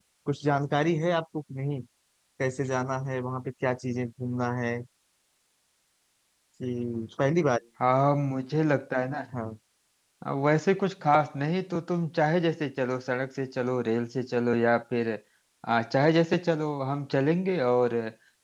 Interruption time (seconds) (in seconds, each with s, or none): none